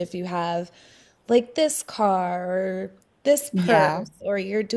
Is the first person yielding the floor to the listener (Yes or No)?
No